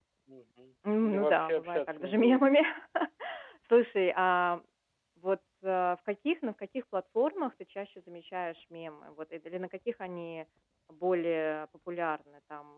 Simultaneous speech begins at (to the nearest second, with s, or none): 1 s